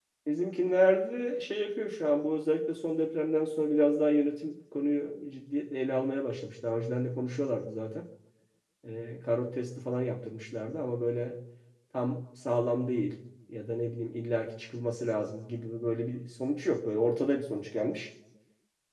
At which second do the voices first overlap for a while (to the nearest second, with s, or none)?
none